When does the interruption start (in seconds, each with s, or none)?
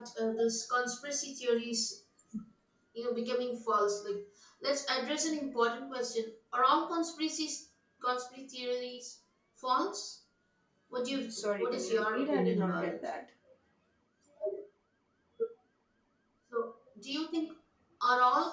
11.3 s